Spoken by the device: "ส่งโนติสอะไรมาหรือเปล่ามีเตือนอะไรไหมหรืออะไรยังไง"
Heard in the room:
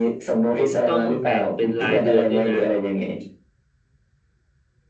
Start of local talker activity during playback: 1 s

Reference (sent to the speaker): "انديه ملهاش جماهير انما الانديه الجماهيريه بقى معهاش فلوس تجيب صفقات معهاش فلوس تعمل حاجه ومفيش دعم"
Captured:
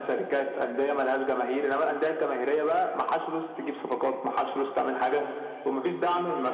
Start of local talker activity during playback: none

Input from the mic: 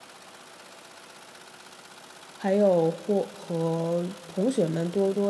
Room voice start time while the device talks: 2 s

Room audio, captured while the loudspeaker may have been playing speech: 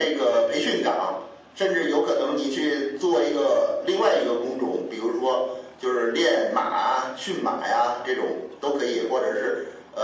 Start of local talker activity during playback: none

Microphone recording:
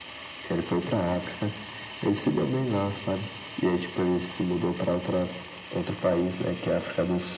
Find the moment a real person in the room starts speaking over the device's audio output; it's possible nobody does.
none

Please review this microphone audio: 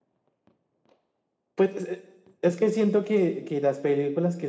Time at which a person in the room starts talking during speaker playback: none

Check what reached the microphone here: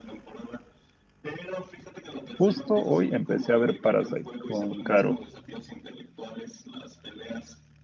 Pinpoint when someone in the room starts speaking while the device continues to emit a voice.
2 s

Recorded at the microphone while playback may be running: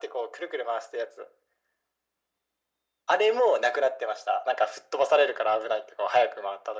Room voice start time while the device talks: none

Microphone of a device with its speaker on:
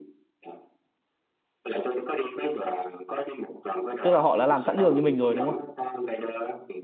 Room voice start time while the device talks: 4 s

